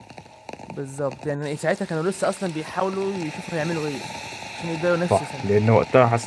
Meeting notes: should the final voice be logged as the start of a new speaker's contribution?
Yes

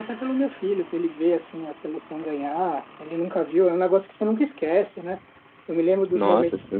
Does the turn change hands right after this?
No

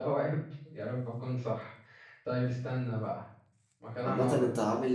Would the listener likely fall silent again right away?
No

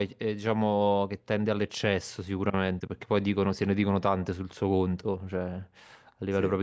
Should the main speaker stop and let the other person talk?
No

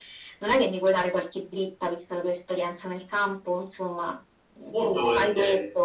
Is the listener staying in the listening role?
Yes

